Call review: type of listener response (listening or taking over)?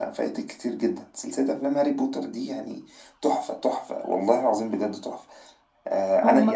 taking over